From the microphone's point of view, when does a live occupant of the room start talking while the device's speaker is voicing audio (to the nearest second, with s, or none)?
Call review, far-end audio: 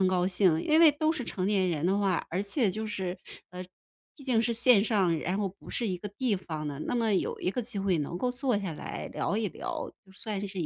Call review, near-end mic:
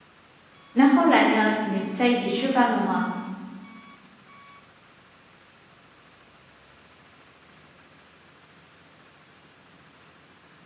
1 s